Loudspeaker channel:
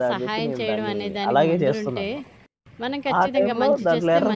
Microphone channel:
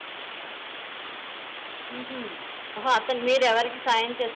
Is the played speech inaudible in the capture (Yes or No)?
Yes